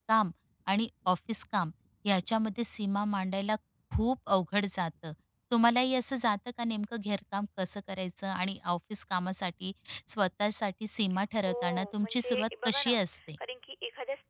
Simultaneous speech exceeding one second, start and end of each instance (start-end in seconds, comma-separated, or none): 11.4-12.9